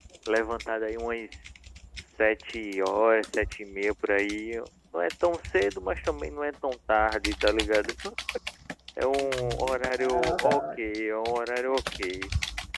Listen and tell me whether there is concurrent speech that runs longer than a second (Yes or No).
Yes